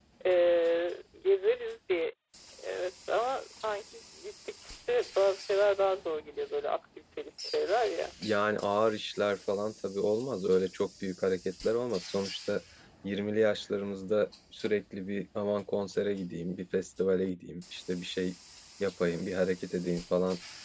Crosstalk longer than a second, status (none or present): none